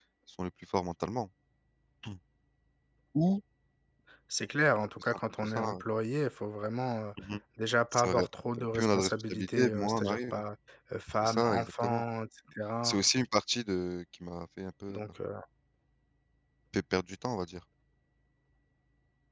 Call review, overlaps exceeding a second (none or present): present